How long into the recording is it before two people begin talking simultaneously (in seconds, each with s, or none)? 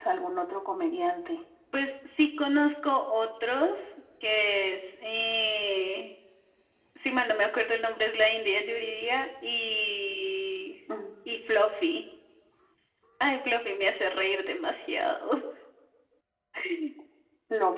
none